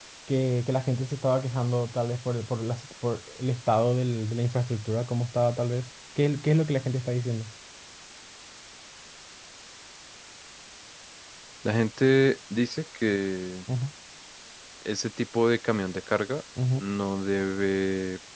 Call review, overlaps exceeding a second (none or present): none